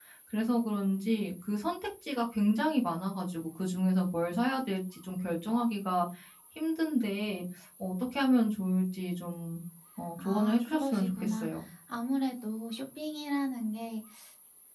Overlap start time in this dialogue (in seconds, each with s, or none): 10.2 s